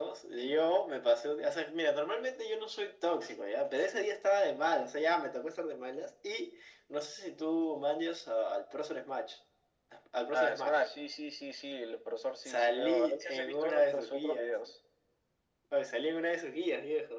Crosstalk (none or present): present